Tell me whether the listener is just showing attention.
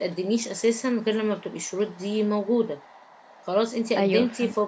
Yes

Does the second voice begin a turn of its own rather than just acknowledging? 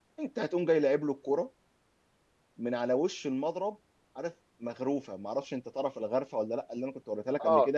No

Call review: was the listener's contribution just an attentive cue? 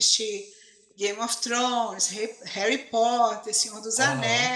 Yes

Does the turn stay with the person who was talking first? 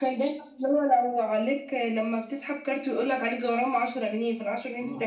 No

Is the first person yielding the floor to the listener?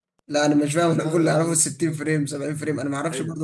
Yes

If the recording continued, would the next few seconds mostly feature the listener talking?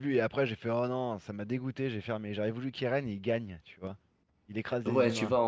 Yes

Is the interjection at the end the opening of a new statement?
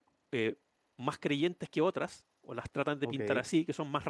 No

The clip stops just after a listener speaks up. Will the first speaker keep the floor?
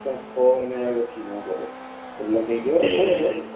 Yes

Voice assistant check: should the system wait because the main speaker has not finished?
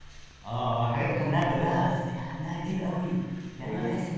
Yes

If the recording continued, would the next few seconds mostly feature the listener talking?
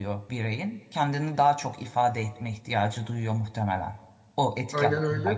Yes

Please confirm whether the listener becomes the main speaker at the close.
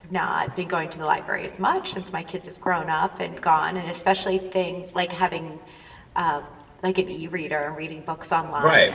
Yes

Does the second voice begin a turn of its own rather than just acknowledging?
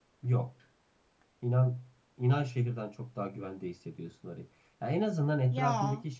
No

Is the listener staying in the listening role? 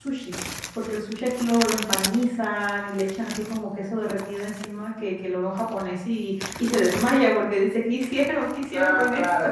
No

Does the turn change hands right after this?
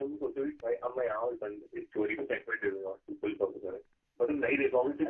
No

